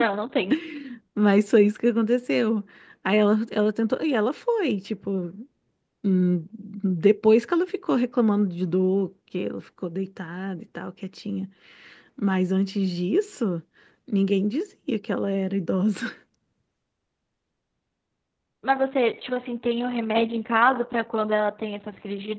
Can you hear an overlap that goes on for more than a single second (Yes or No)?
No